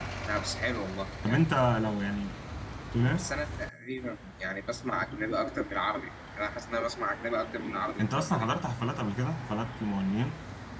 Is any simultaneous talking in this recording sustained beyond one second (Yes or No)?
No